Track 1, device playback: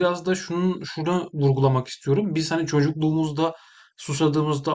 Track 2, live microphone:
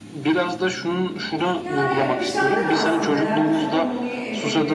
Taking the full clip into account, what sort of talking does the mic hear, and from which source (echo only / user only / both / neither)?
both